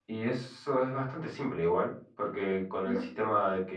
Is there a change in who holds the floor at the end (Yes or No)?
No